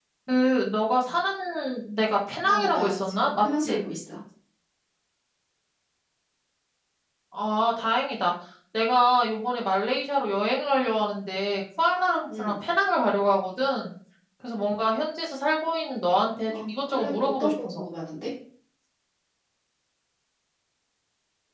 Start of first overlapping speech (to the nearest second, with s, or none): 2 s